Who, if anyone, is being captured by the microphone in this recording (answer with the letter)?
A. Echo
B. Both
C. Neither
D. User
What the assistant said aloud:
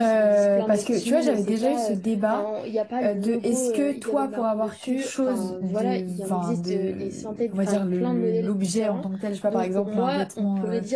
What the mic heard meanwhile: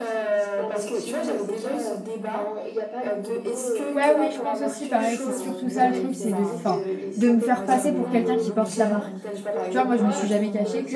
B